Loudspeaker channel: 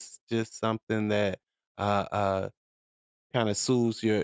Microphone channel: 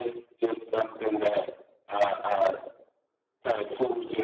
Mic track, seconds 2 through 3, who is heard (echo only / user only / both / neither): echo only